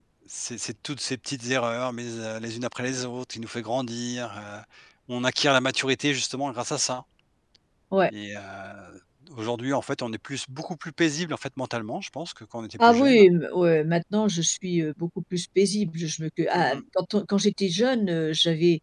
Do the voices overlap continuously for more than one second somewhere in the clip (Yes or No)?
No